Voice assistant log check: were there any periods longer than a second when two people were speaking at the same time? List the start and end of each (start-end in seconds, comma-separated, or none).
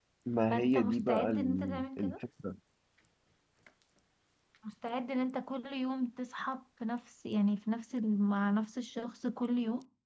0.5-2.1